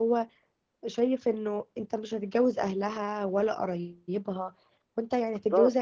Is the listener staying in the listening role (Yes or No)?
Yes